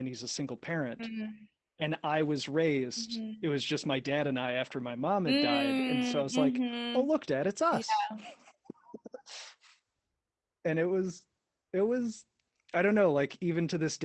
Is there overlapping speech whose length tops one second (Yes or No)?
Yes